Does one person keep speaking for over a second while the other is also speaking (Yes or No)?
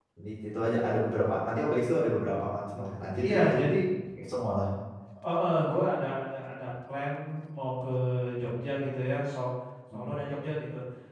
No